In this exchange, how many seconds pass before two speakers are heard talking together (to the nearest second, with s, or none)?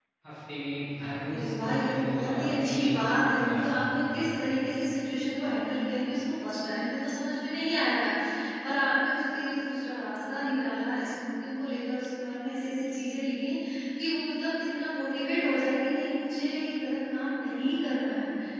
1 s